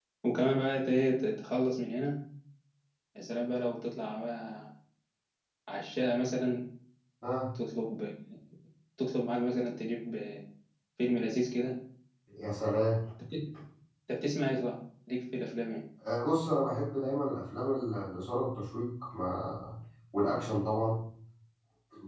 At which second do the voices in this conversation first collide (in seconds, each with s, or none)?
none